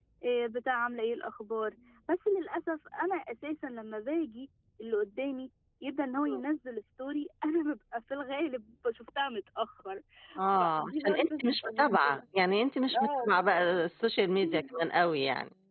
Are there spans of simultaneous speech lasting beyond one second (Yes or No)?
Yes